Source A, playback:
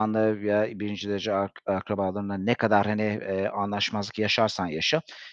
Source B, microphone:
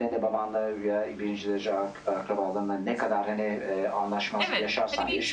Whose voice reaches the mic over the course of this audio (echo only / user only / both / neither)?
both